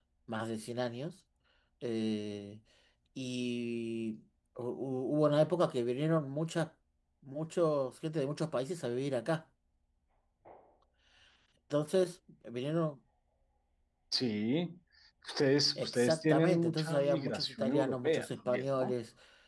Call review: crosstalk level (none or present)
present